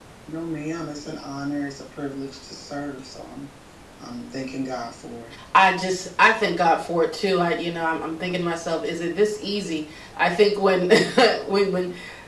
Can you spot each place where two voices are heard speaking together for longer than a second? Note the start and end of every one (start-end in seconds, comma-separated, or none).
none